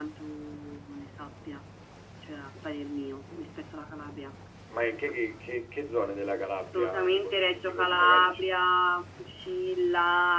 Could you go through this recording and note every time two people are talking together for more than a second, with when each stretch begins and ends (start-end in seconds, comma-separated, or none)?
6.7-8.5